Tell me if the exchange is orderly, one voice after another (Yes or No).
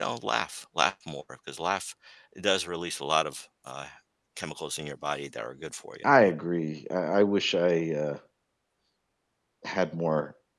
Yes